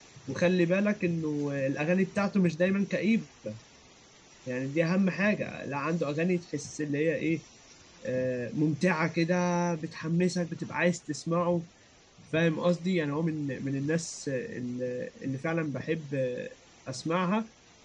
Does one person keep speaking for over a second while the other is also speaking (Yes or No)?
No